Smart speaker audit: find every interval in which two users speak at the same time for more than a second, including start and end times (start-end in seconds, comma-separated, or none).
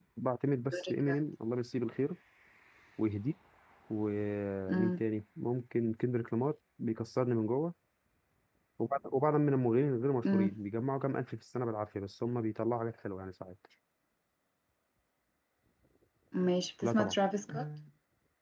none